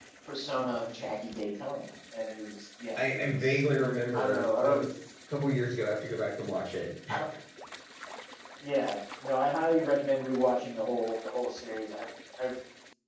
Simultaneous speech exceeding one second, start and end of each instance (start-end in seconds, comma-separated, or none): 3.0-4.8